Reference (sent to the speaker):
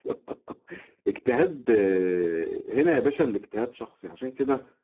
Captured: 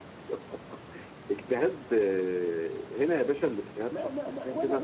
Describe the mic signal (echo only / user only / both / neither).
both